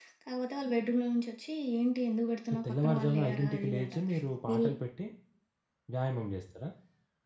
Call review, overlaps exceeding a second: present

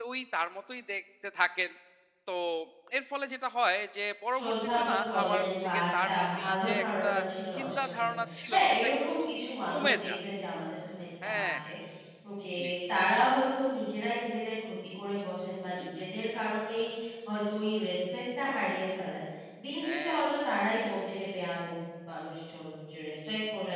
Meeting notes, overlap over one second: present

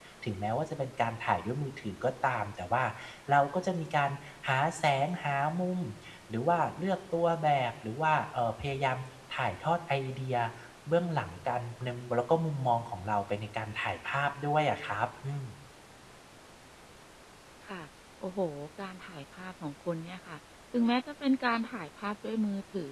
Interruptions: none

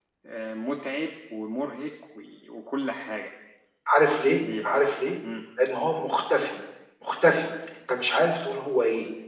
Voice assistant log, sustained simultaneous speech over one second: none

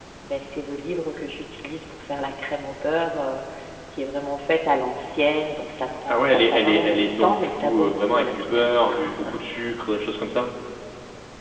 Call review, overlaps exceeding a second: present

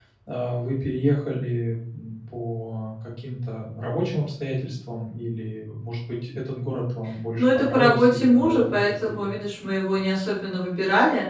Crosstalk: present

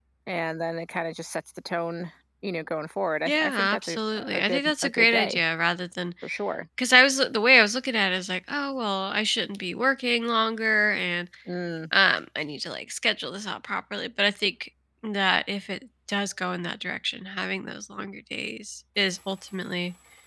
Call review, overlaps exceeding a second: present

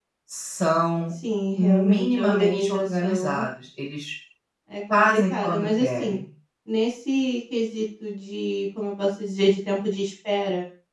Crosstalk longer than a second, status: present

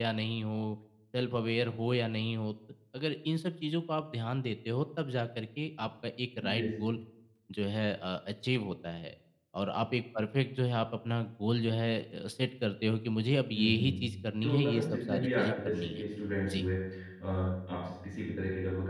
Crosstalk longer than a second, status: present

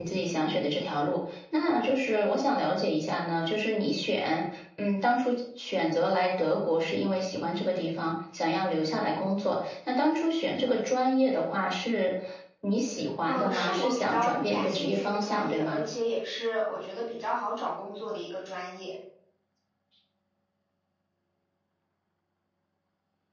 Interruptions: present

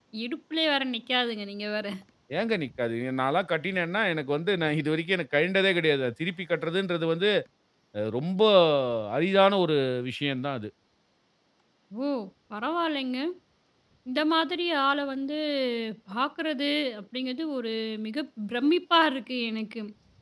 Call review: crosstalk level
none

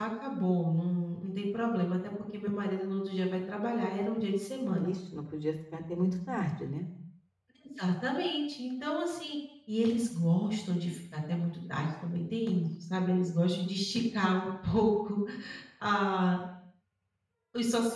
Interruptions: none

